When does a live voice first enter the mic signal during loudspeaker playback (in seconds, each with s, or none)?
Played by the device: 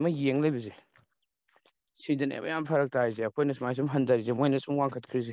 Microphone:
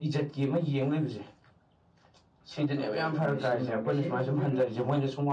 2.5 s